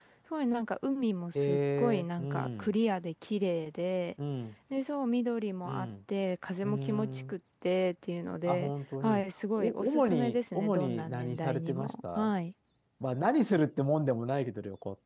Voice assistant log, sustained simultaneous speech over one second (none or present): present